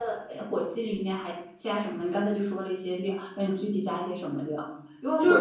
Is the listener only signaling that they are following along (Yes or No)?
Yes